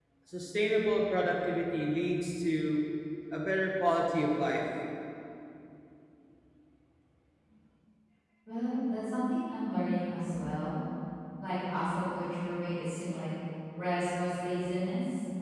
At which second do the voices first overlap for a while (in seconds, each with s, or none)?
none